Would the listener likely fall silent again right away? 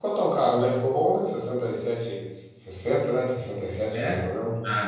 No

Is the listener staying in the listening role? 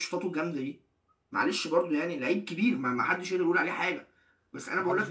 Yes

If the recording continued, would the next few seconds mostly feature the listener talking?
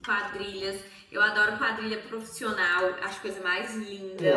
Yes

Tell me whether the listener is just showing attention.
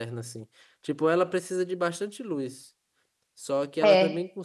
Yes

